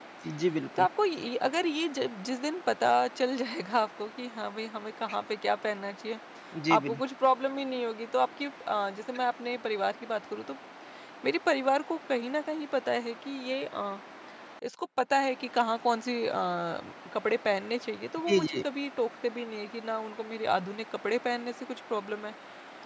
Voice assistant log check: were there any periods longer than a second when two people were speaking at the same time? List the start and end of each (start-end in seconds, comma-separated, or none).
none